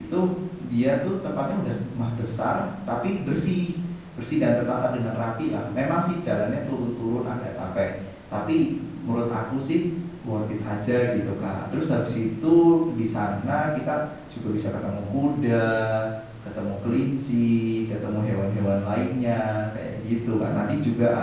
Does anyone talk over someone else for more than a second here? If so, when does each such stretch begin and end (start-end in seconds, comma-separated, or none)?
none